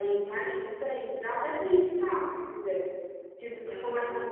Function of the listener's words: listening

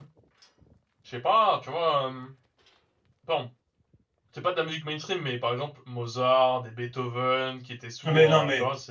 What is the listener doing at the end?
taking over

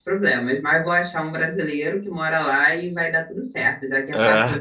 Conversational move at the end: listening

